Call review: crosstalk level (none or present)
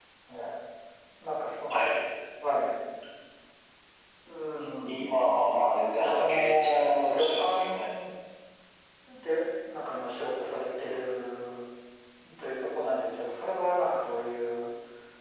present